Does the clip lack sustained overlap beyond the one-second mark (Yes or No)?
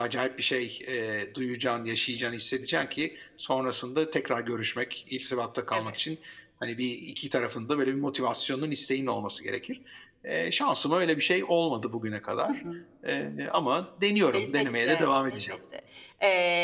No